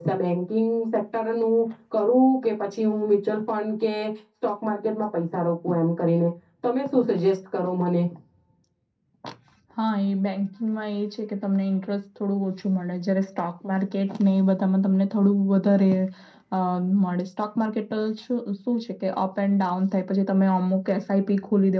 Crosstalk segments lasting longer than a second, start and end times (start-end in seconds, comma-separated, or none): none